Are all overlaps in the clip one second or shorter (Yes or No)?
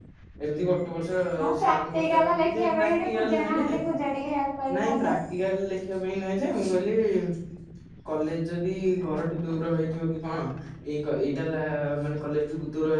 No